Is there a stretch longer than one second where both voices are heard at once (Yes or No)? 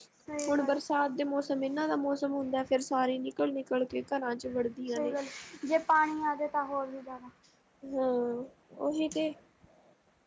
No